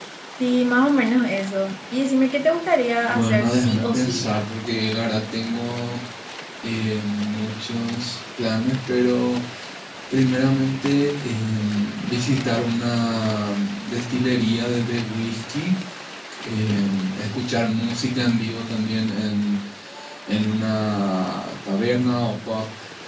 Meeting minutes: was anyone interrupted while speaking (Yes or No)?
Yes